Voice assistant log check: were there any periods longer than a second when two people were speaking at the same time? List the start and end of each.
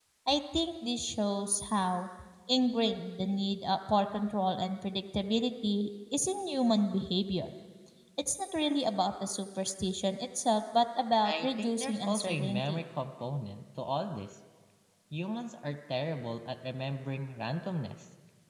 11.2-12.8

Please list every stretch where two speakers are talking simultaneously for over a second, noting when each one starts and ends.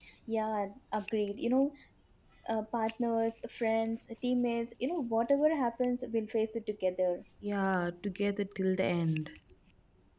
none

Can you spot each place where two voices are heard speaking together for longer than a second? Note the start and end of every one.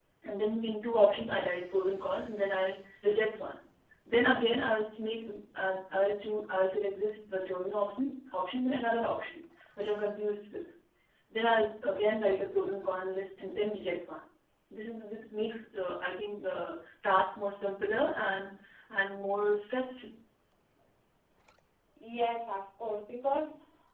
none

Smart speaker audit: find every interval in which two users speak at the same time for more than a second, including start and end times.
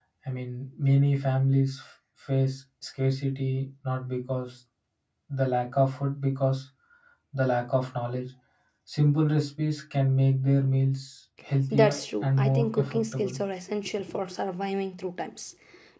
11.7-13.4

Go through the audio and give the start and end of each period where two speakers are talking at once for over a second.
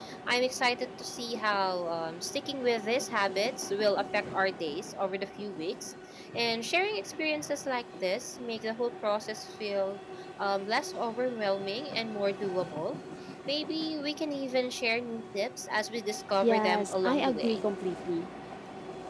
16.4-17.6

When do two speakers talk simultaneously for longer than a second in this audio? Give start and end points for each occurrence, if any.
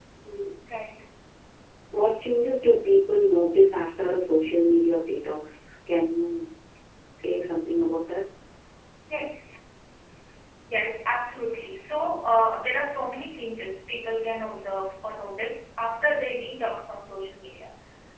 none

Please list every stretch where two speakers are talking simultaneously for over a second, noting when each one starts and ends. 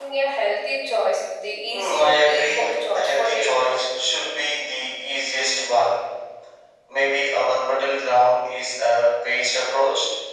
1.7-3.9

